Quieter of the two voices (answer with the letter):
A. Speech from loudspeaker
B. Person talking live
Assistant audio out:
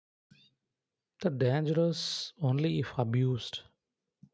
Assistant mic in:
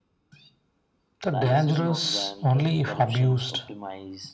B